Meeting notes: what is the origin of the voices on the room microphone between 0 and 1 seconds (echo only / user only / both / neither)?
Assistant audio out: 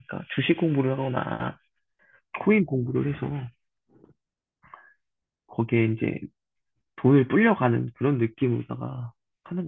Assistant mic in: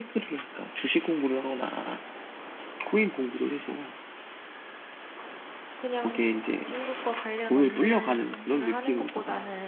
echo only